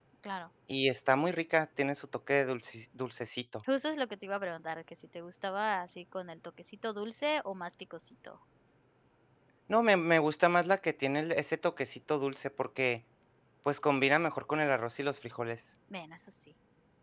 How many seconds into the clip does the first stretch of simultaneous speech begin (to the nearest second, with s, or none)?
none